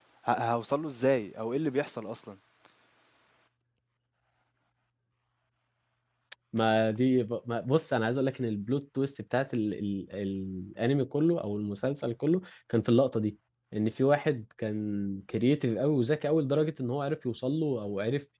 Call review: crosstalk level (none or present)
none